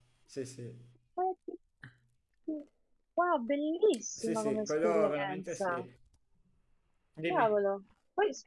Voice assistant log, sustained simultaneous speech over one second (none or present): present